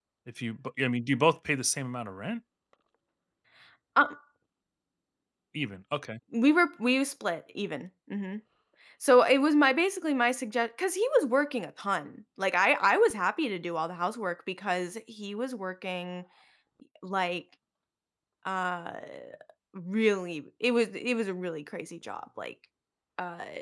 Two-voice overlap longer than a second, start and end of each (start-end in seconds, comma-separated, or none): none